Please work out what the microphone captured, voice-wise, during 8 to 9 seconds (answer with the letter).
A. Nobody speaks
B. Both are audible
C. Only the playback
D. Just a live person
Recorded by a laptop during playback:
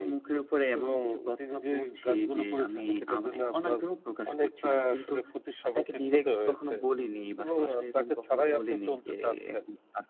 C